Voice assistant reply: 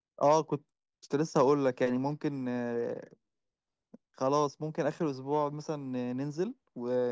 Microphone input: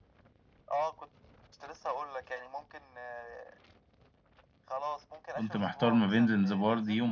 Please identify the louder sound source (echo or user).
user